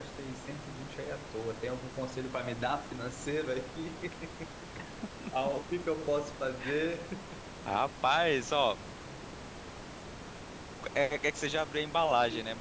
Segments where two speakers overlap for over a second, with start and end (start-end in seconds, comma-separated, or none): none